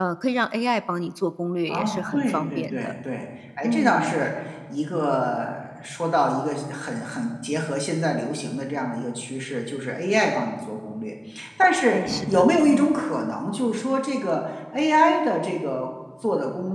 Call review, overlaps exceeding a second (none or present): present